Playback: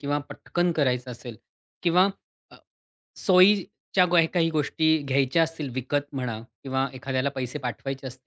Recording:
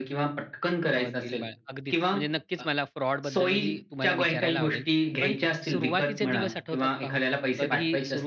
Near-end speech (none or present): present